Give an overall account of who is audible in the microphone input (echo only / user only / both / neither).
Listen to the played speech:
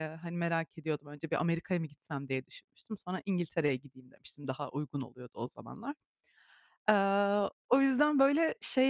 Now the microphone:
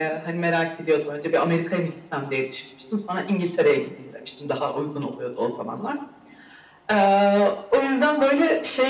echo only